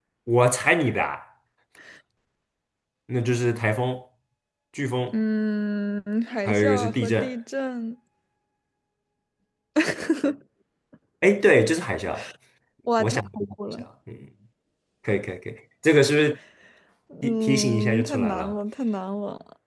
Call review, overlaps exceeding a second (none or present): present